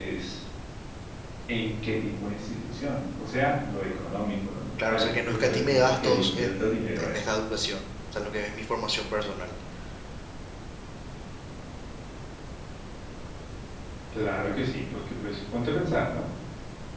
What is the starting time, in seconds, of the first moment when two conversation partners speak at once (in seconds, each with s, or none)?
4.8 s